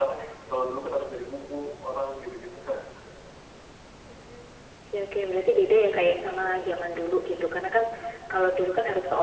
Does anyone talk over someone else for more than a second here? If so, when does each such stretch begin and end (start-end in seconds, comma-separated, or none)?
none